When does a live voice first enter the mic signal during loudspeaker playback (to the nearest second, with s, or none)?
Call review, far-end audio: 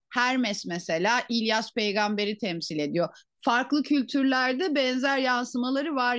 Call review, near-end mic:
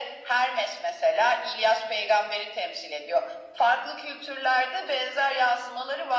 none